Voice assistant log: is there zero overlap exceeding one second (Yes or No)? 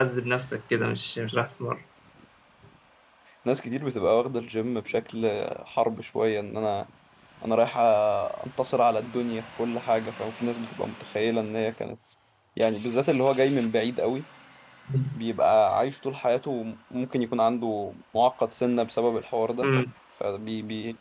Yes